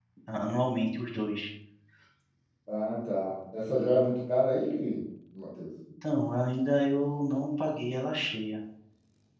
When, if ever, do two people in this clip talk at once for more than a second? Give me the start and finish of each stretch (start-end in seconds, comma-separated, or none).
none